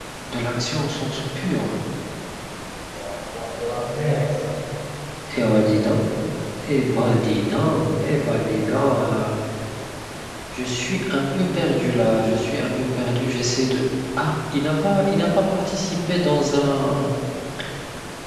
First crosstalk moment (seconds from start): none

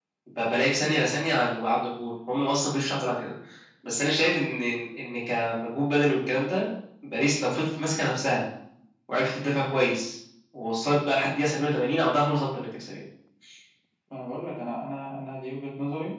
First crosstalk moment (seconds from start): none

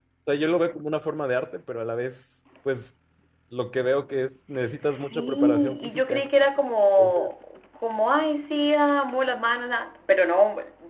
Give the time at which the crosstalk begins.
4.8 s

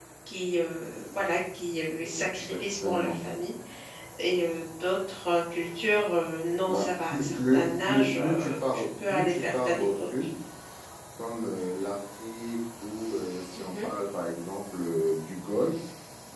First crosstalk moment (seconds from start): 2.0 s

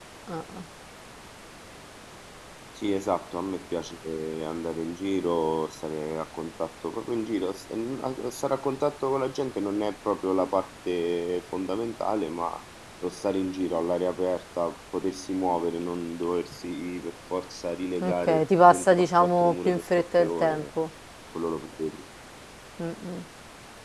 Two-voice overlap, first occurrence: 18.0 s

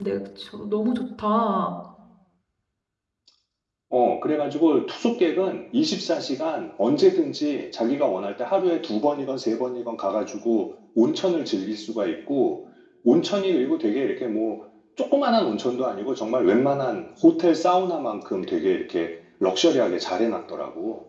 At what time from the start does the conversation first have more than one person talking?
none

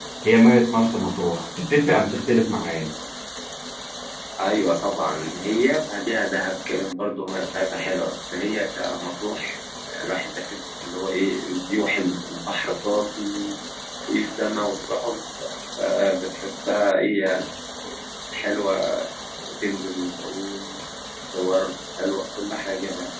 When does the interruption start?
none

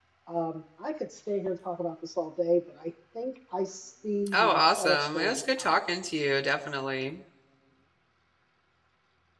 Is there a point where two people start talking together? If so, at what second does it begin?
4.3 s

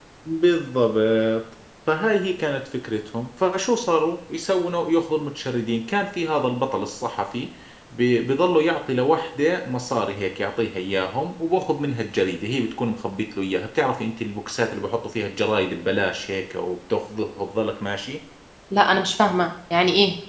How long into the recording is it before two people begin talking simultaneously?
none

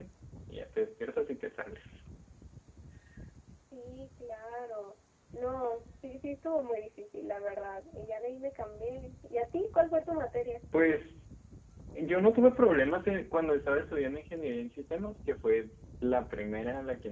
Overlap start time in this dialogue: none

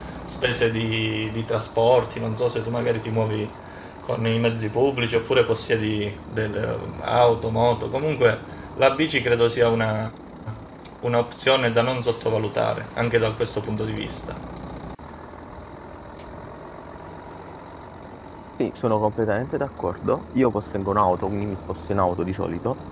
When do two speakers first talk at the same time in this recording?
none

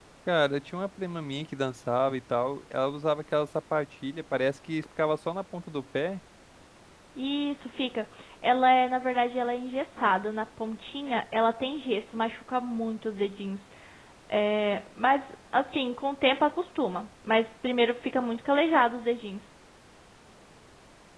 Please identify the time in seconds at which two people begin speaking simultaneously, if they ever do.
none

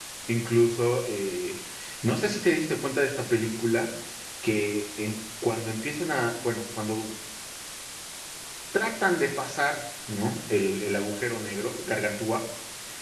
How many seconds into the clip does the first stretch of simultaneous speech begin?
none

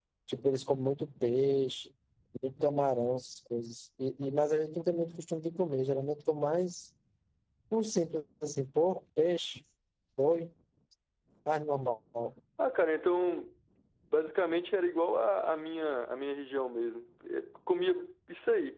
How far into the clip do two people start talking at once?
none

